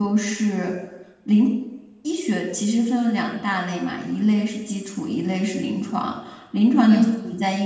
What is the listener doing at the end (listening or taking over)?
listening